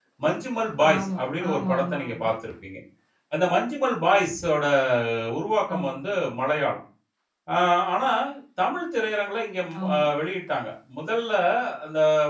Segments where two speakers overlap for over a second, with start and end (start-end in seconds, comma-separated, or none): 0.9-2.3